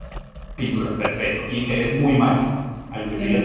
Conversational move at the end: listening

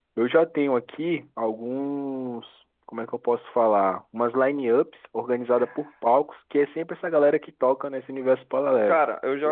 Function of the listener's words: taking over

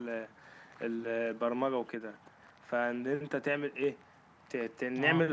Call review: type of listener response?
listening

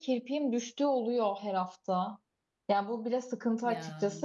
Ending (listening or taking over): listening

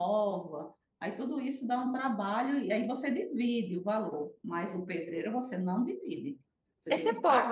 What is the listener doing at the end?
taking over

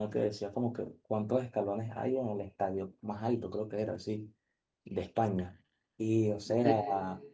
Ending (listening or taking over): listening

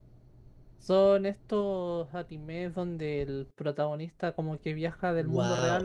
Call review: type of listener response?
taking over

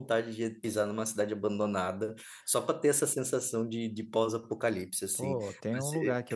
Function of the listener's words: taking over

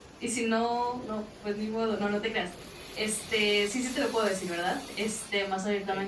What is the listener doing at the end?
listening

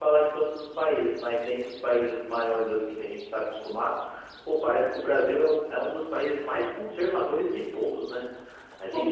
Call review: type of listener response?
listening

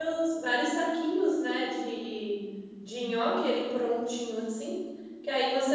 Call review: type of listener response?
listening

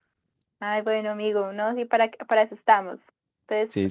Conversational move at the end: listening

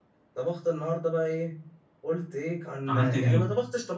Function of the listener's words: listening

